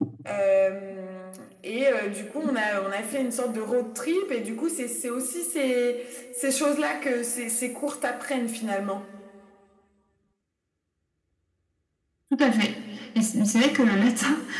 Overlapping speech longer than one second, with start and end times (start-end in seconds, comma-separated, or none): none